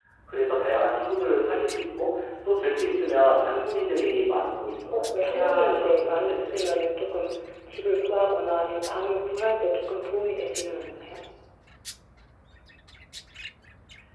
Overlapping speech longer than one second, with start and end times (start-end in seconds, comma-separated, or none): 4.9-6.5